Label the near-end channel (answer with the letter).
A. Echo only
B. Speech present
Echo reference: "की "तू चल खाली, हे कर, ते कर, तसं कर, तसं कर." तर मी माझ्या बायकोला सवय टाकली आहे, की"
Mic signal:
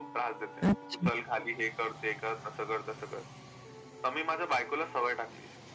B